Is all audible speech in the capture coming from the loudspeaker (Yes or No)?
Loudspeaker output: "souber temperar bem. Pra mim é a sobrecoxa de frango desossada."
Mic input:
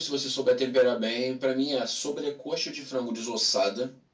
Yes